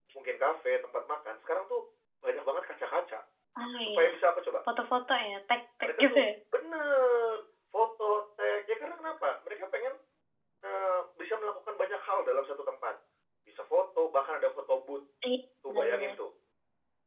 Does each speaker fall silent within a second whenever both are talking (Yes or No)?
Yes